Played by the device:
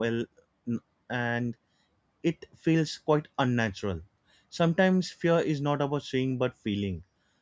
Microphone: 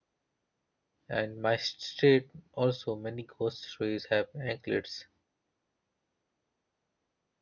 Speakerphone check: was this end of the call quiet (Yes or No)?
No